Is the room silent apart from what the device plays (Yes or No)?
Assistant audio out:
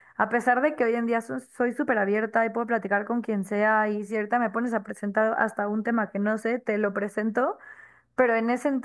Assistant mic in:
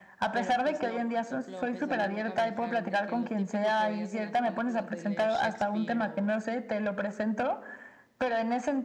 No